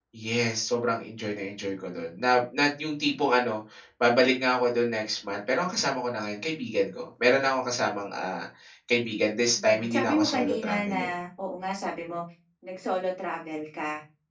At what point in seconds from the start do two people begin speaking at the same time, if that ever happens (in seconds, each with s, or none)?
9.5 s